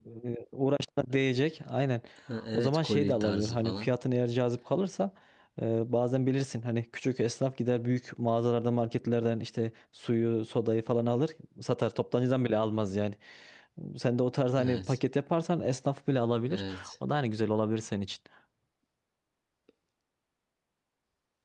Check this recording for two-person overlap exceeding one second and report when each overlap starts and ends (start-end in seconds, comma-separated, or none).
2.5-3.9